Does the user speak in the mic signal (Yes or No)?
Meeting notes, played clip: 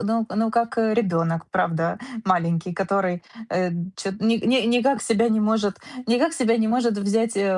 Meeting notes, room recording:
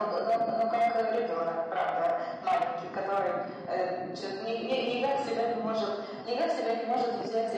No